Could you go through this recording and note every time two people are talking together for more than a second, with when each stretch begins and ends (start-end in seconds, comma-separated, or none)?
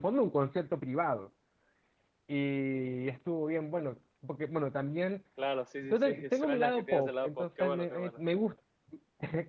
5.8-8.2